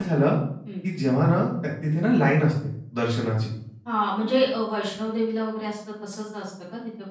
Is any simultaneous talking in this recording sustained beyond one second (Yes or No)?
No